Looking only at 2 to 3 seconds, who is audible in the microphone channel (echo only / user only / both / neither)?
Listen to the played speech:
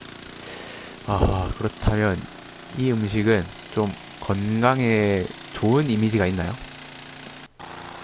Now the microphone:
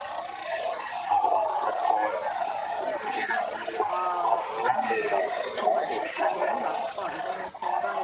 echo only